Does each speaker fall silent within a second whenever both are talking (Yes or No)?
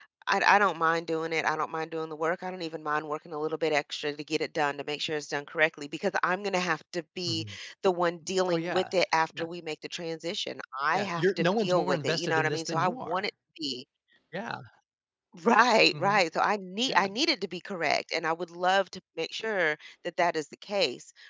No